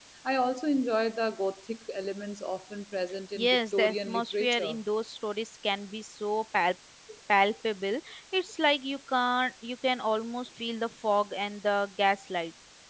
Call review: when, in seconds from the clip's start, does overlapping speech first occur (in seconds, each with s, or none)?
3.4 s